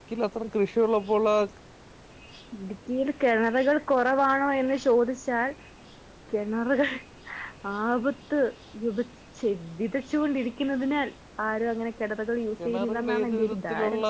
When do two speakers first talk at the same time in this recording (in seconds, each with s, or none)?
12.6 s